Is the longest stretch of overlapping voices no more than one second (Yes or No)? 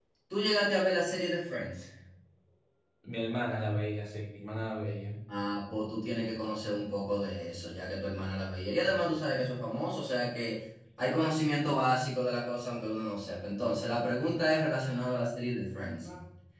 Yes